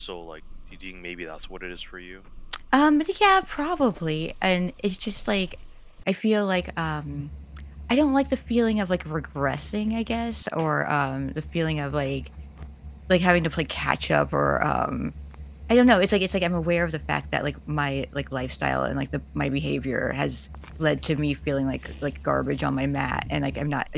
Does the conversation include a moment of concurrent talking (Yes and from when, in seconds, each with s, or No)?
No